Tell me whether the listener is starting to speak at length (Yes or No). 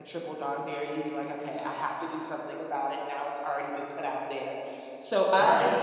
No